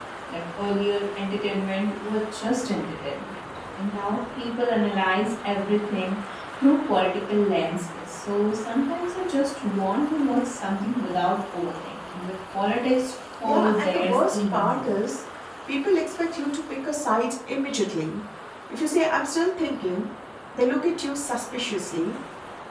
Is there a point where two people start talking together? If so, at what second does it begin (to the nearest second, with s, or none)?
13 s